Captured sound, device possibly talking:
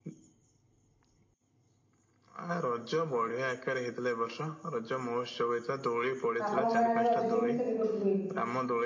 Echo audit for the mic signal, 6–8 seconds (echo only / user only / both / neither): both